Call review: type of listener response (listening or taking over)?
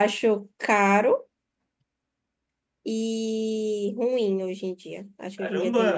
taking over